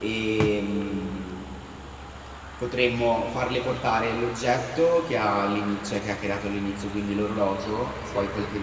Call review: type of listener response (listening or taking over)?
listening